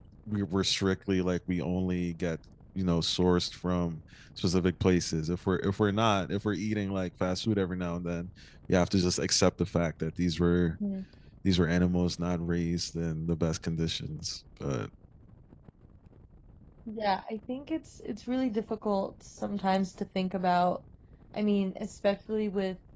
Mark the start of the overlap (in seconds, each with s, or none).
none